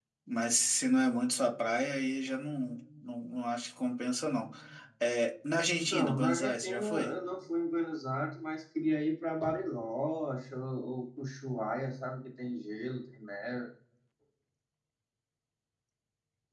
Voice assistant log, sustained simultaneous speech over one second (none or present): present